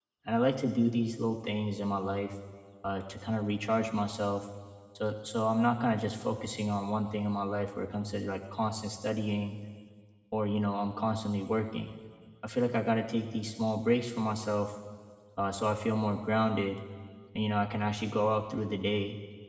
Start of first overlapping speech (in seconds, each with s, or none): none